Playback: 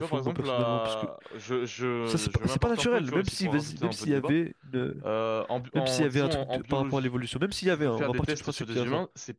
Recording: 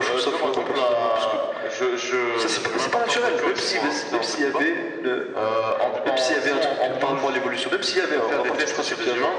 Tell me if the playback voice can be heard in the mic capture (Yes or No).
Yes